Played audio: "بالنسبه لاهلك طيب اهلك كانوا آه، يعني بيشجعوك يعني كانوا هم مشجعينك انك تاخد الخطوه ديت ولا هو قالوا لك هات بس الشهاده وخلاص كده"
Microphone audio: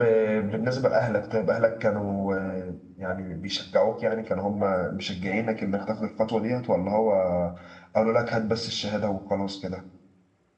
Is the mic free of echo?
No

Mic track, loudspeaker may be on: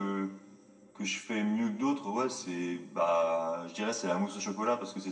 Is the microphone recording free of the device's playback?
No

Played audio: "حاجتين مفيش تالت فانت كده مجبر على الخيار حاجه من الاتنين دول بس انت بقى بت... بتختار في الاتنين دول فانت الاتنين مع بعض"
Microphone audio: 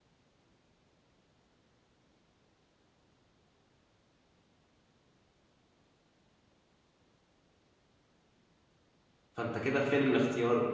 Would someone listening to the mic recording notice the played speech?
No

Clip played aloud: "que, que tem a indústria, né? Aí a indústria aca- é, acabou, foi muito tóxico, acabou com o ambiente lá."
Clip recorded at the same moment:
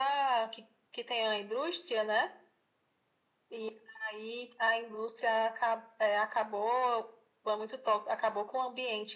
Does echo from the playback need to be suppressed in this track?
Yes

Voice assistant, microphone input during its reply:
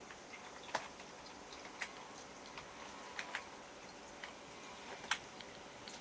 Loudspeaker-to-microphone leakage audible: No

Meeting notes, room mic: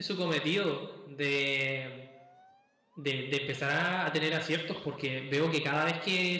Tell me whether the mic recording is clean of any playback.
Yes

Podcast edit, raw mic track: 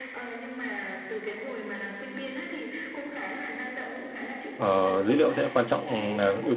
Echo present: Yes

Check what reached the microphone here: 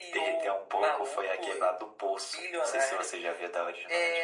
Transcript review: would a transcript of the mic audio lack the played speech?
No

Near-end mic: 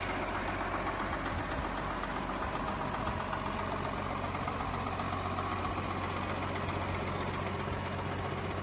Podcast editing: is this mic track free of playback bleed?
Yes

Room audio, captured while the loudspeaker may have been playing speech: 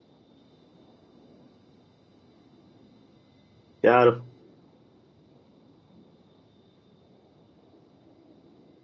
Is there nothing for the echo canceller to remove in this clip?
Yes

